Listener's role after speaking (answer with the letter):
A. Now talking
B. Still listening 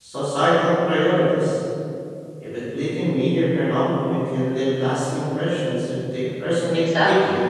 A